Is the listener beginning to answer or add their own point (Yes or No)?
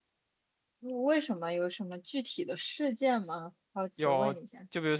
Yes